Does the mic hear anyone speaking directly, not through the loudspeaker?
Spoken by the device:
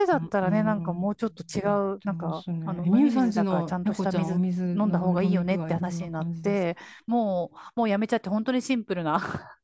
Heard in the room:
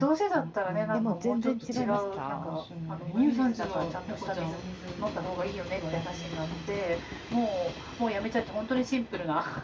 Yes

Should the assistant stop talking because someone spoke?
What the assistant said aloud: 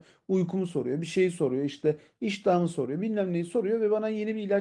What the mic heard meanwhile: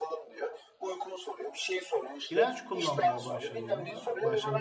Yes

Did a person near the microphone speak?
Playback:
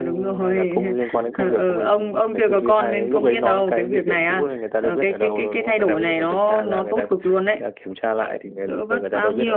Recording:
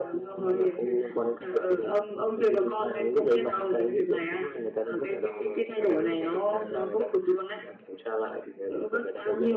No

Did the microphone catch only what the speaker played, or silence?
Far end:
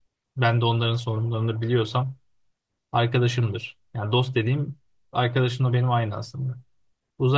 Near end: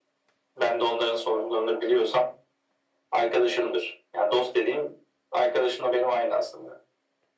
Yes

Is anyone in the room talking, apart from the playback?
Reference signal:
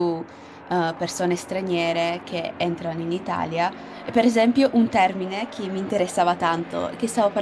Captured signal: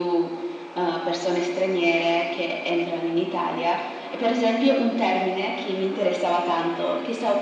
No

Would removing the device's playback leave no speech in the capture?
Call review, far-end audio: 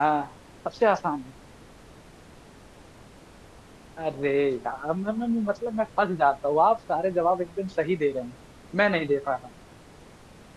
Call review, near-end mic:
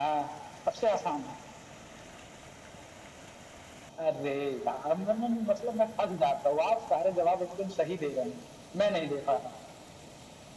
Yes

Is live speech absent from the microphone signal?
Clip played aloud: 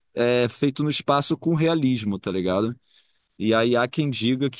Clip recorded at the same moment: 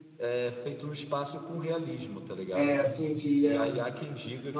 No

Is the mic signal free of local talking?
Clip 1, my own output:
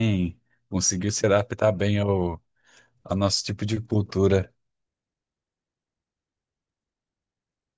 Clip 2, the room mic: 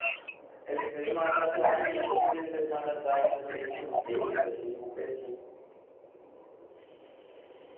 No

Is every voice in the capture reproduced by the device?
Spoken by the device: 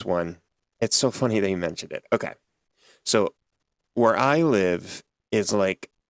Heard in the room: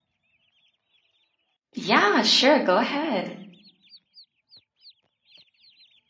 No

